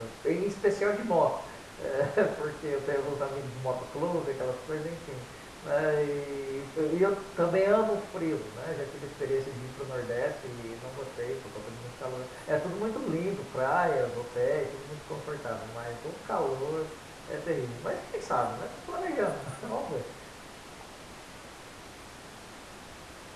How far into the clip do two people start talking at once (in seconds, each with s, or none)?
none